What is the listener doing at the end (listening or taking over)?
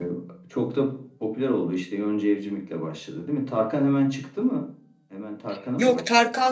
taking over